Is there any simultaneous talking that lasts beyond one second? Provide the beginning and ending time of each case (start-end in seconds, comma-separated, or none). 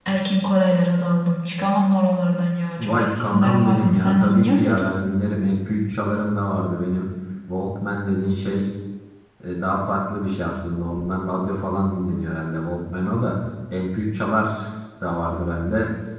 2.8-5.0